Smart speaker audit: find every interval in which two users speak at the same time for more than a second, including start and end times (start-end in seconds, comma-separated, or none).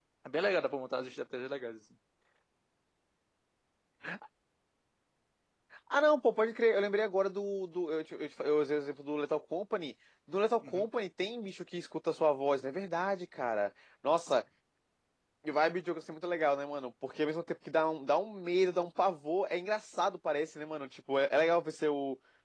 none